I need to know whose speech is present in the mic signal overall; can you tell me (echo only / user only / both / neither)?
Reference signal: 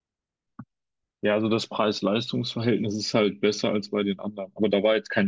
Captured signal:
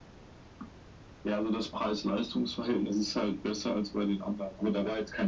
echo only